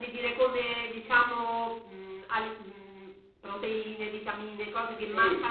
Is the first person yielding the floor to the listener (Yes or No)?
Yes